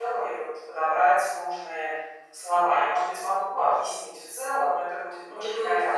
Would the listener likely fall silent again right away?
No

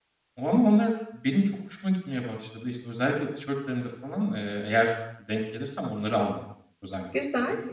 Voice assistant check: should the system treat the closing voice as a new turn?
Yes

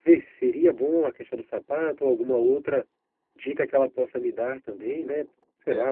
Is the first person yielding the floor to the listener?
Yes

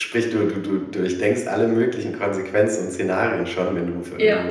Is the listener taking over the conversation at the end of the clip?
No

